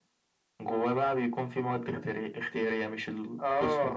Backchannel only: No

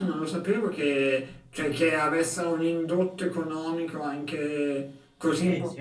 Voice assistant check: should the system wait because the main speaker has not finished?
No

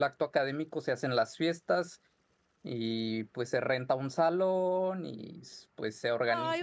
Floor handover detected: Yes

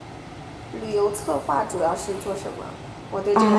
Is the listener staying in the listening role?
No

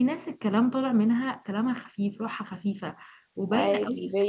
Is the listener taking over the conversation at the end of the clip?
No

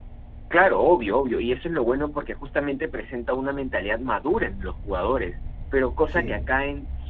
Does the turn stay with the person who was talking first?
Yes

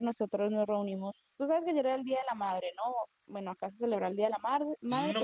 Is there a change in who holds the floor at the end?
Yes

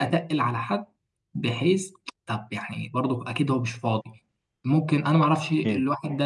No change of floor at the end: Yes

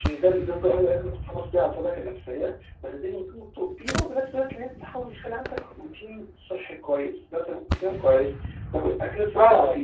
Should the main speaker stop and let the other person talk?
No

